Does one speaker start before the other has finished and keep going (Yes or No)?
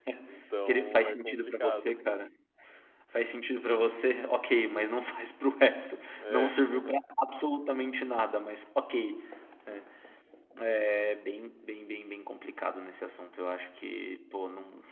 Yes